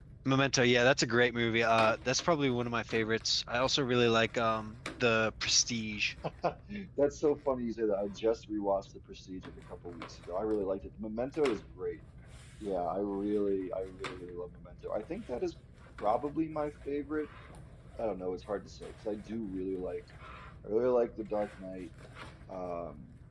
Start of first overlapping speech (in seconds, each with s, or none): none